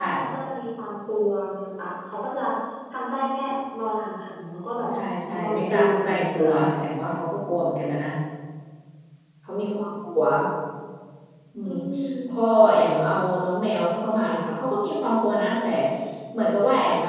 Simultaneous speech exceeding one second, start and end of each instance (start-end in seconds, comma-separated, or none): 5.4-6.6